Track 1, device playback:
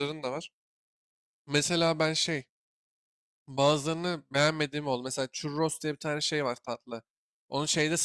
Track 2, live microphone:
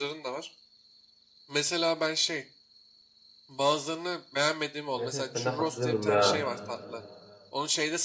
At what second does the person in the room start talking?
4.9 s

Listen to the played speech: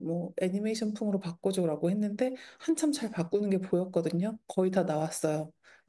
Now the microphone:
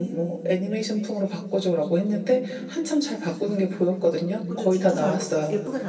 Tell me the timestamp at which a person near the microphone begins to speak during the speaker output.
4.4 s

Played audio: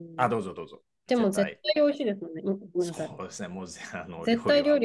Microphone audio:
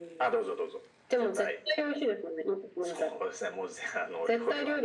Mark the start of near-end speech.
none

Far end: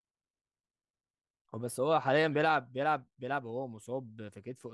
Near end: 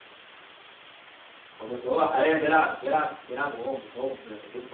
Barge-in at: none

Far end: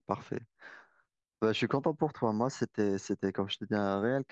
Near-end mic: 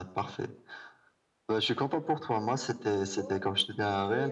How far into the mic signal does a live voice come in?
2.9 s

